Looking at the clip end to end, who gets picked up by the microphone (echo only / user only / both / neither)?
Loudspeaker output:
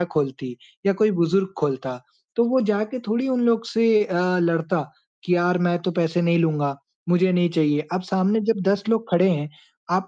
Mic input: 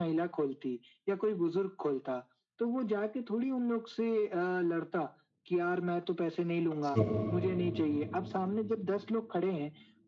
both